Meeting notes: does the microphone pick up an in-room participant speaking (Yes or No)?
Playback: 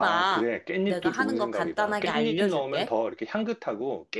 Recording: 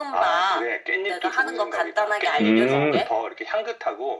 Yes